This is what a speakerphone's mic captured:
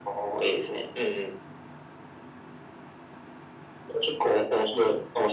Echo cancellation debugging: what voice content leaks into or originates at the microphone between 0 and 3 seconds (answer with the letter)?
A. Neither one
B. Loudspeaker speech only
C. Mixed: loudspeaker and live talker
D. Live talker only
B